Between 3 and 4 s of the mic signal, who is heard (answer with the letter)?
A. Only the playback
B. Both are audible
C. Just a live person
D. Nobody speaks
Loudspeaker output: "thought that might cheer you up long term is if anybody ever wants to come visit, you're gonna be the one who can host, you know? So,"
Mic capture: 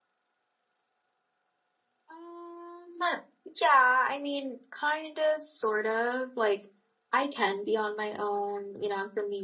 C